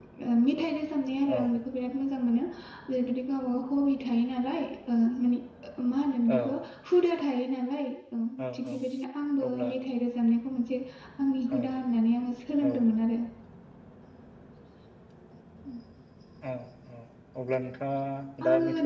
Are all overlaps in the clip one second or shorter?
Yes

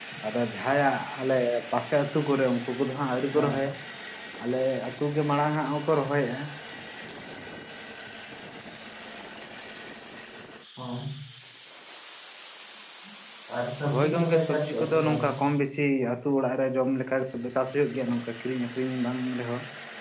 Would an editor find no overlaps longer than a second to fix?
No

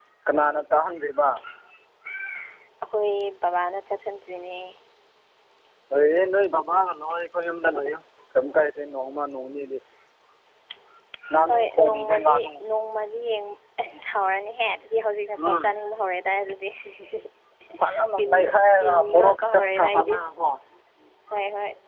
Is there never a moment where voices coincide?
No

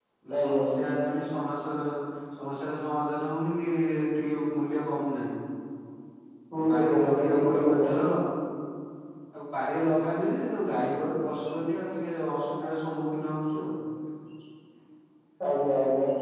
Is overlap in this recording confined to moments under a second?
No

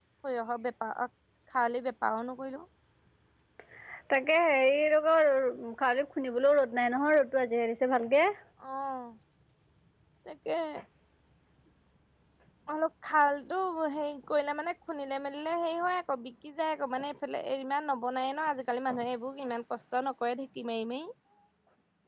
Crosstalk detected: No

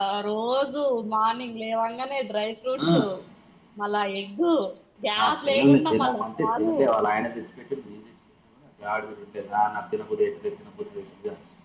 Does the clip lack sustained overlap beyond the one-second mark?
No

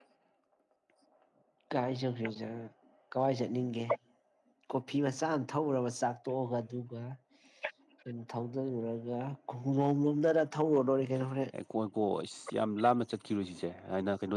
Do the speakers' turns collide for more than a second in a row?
No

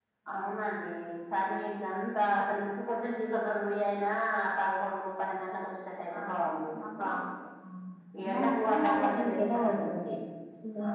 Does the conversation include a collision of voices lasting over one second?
Yes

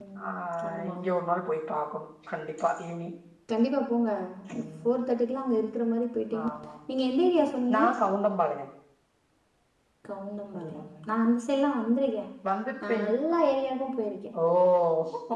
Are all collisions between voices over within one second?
Yes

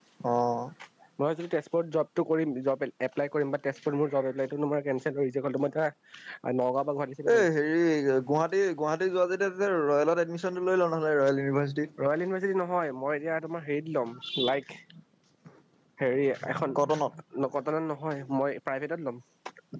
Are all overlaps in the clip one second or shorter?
Yes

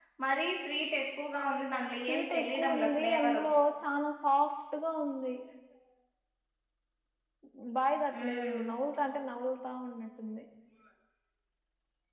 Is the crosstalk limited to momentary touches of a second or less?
No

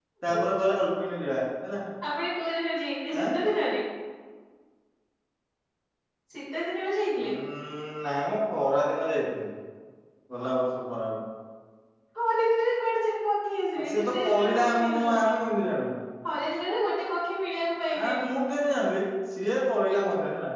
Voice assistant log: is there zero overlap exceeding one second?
No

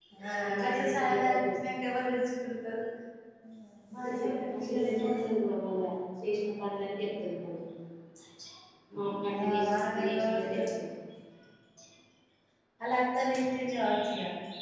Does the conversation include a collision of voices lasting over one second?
Yes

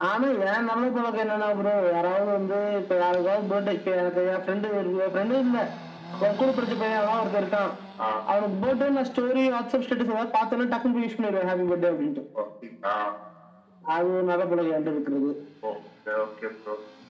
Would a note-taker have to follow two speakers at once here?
No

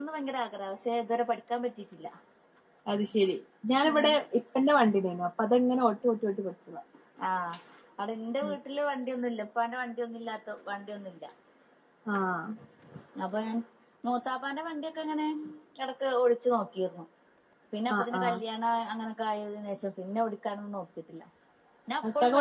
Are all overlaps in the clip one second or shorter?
Yes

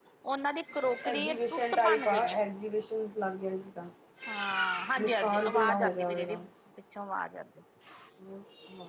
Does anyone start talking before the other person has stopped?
Yes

